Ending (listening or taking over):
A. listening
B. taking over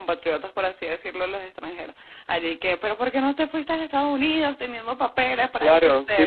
B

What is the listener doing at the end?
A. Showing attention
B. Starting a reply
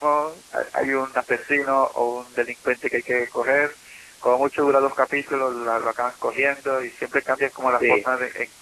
A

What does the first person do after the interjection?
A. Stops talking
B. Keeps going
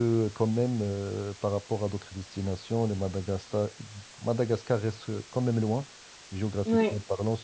B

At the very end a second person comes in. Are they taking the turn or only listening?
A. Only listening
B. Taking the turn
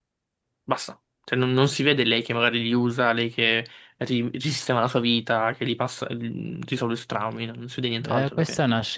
B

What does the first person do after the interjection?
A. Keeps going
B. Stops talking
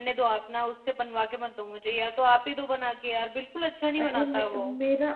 B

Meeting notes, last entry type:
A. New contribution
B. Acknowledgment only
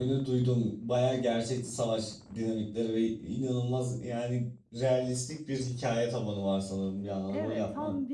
A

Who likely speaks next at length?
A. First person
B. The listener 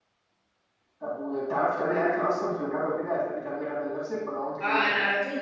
B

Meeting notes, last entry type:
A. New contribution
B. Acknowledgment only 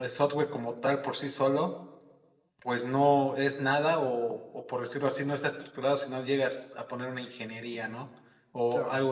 B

